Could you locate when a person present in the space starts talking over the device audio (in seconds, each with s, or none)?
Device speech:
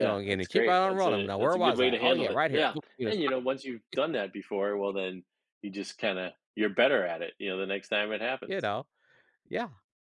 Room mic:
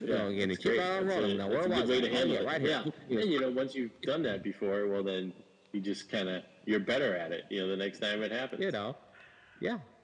none